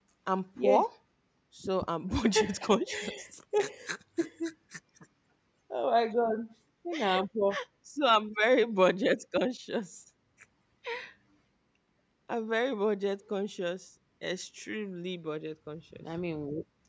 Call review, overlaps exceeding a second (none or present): none